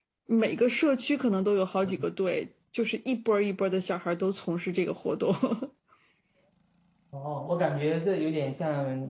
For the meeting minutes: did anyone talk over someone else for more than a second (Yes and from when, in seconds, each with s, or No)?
No